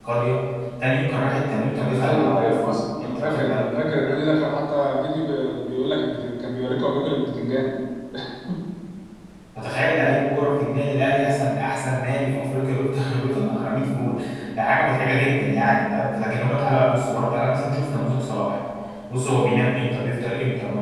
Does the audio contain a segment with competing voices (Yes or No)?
Yes